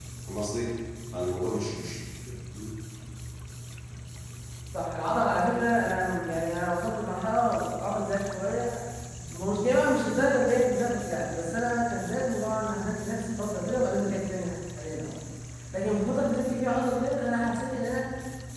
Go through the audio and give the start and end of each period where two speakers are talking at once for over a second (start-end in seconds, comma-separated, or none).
none